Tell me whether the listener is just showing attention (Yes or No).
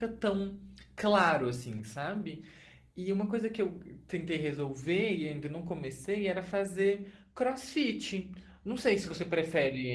Yes